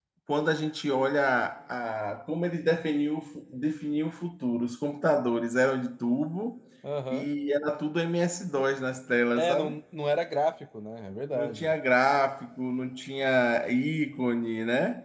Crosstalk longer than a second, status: none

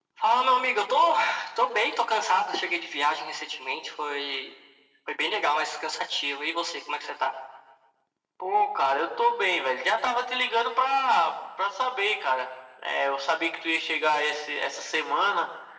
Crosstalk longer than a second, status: none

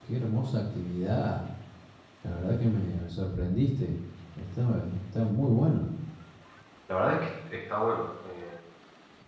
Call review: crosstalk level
none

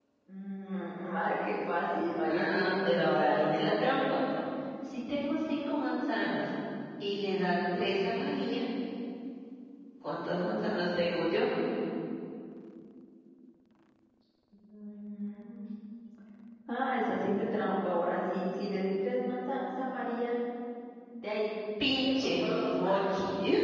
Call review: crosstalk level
present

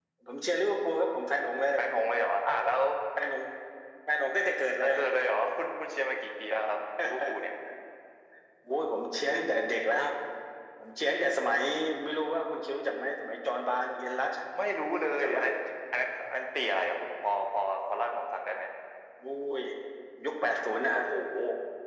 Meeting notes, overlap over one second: none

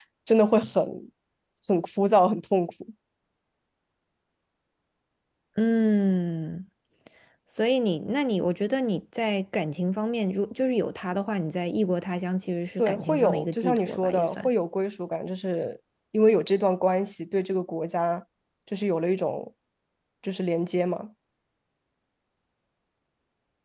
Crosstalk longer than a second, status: present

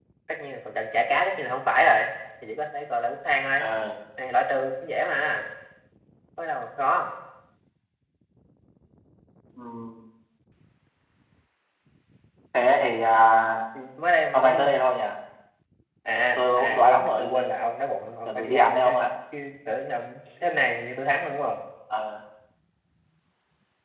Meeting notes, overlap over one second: present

